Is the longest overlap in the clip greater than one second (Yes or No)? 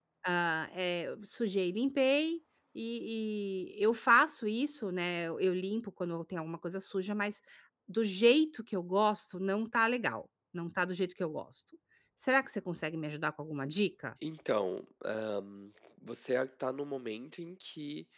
No